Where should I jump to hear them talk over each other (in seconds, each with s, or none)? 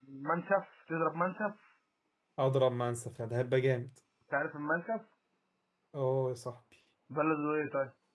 none